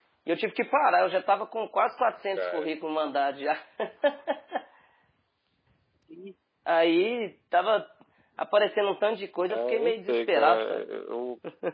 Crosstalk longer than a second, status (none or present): present